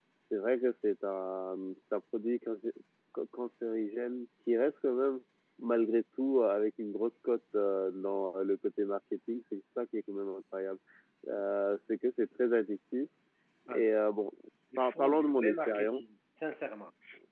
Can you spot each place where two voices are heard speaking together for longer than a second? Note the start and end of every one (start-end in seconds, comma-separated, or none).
14.8-16.0